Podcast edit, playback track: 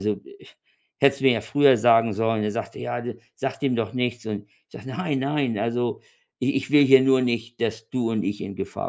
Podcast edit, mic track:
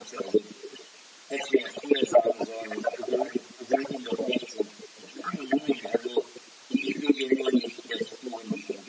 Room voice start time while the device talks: 3.0 s

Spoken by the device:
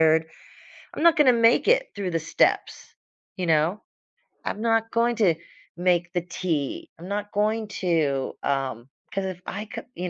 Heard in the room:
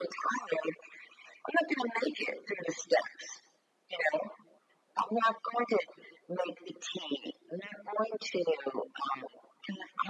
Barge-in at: none

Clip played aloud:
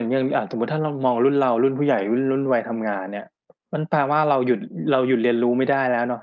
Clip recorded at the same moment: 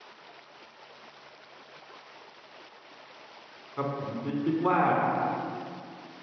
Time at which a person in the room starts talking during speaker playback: 3.8 s

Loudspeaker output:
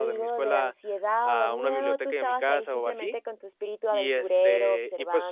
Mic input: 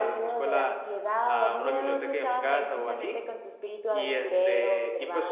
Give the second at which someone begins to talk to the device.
none

